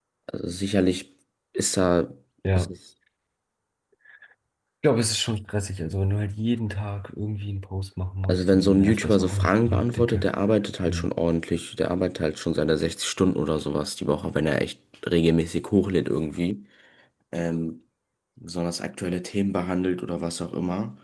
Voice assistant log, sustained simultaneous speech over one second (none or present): present